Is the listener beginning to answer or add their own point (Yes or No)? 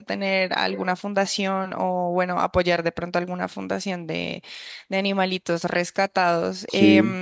No